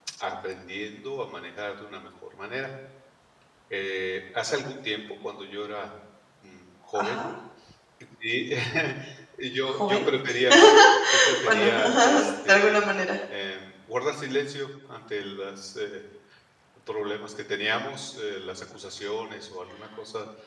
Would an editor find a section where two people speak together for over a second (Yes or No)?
Yes